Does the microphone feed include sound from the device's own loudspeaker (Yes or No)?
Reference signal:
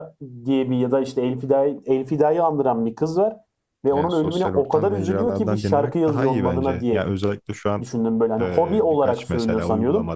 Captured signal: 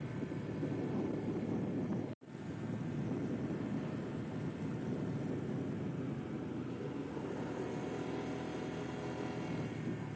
No